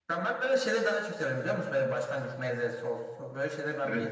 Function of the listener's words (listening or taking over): taking over